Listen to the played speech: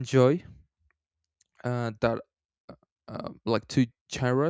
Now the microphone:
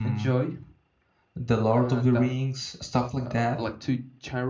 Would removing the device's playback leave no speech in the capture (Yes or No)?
No